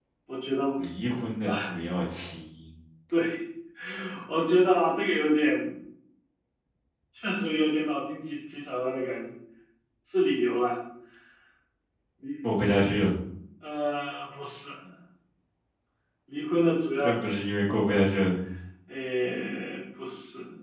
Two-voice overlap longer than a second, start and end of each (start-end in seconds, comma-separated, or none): none